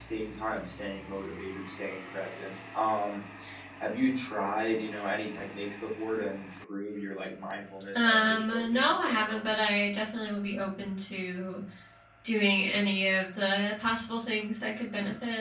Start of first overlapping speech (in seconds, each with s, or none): 8.0 s